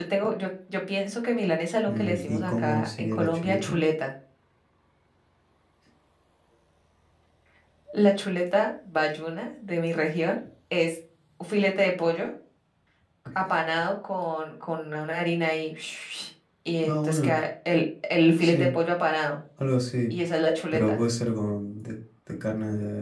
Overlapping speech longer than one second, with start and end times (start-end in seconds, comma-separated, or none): 1.9-3.8